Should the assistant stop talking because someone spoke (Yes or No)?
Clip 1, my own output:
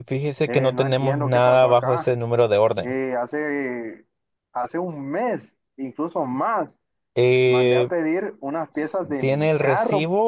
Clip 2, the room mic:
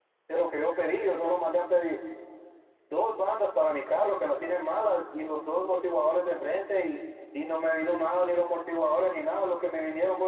Yes